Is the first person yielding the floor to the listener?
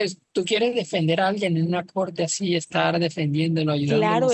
Yes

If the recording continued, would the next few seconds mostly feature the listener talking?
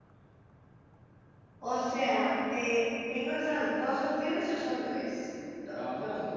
Yes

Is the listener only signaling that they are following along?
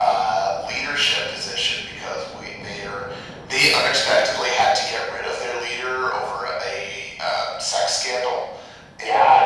No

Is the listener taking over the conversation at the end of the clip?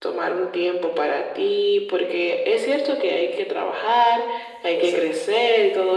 No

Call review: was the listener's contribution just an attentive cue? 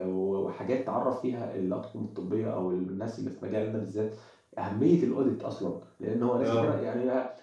Yes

